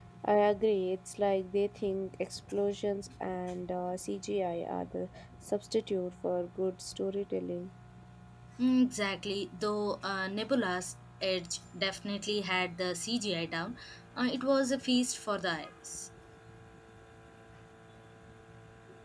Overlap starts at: none

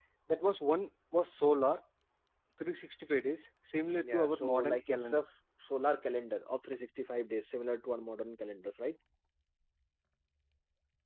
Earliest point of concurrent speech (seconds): 4 s

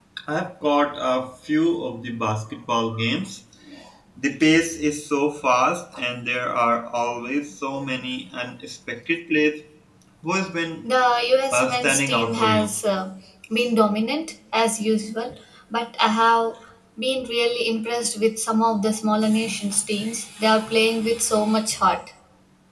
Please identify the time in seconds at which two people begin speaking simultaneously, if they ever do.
12 s

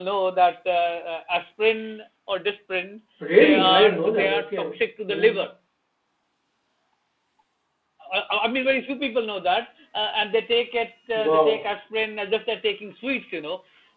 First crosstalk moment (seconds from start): 3 s

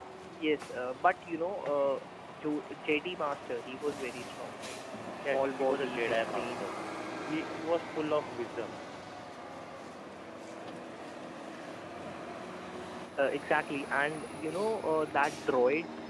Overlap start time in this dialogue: 5 s

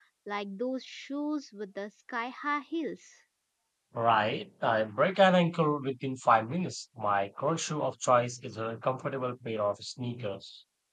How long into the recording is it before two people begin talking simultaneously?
none

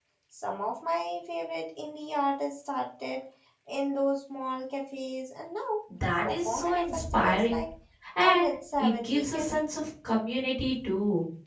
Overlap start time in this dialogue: 6 s

